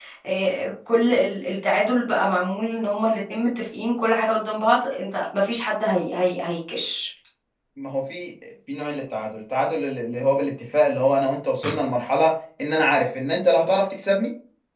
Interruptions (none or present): none